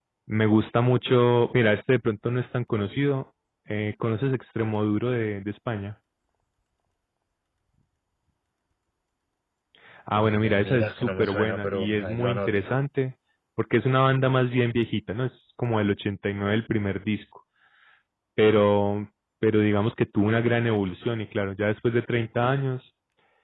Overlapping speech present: Yes, from 10.2 s

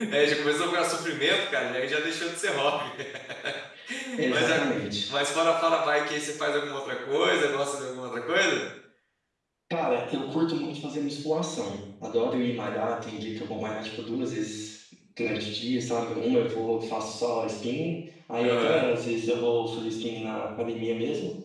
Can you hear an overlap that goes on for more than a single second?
No

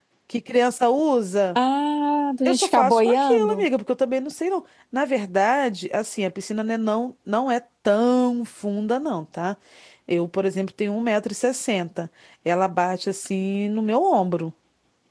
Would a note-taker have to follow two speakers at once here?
Yes, from 2.5 s

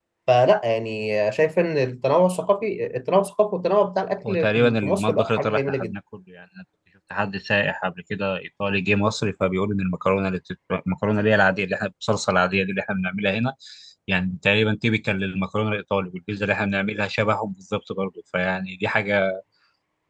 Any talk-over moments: Yes, from 4.2 s

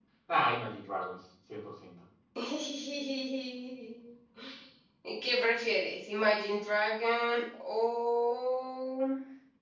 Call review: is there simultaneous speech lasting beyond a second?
No

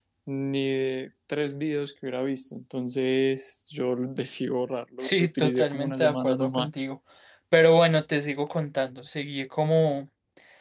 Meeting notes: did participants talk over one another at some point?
Yes, from 5.0 s

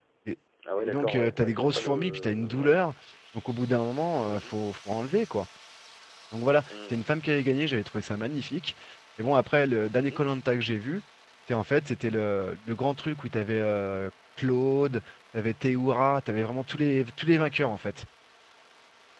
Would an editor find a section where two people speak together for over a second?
Yes, from 0.8 s

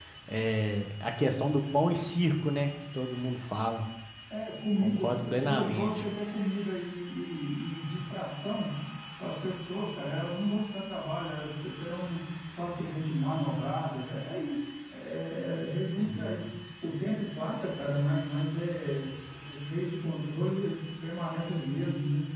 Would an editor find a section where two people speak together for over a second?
Yes, from 4.8 s

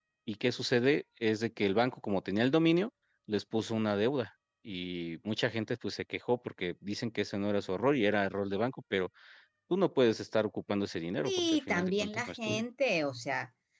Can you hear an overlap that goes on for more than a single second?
Yes, from 11.2 s

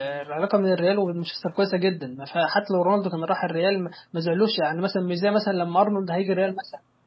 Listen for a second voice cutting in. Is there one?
No

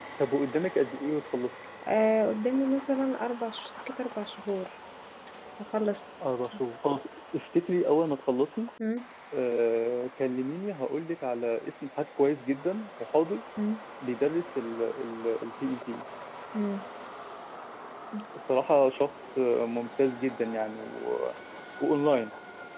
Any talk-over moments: No

